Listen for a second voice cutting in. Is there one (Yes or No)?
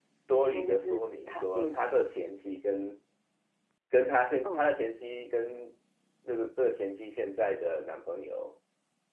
Yes